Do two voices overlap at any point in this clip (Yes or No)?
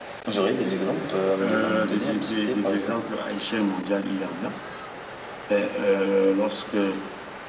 Yes